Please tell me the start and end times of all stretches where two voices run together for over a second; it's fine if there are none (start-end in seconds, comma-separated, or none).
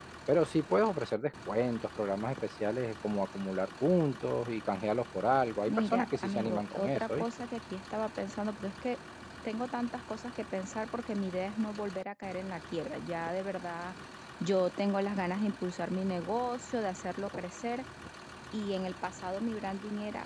5.7-7.2